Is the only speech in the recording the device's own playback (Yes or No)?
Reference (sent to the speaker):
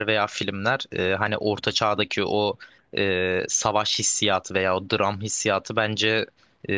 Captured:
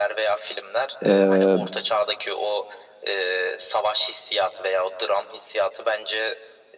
No